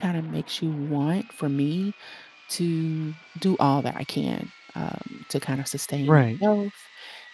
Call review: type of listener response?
listening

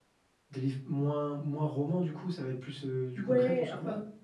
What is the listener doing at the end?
taking over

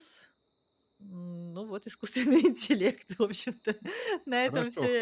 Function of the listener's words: taking over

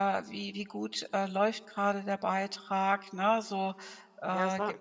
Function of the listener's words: taking over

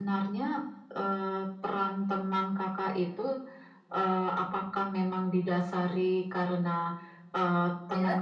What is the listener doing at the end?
listening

